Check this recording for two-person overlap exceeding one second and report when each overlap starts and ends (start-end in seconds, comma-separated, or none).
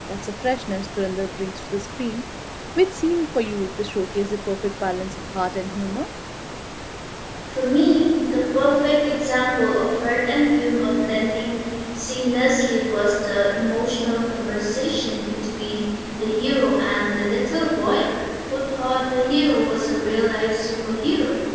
none